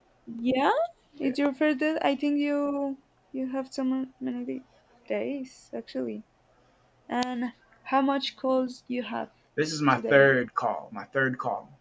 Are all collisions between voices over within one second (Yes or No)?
Yes